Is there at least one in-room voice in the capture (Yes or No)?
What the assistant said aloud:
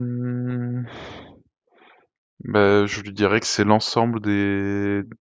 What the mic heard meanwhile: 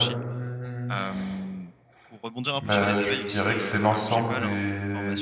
Yes